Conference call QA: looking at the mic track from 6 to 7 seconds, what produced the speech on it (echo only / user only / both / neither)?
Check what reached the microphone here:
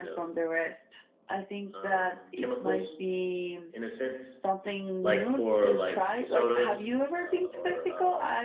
both